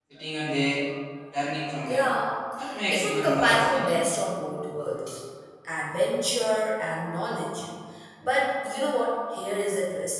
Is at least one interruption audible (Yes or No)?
Yes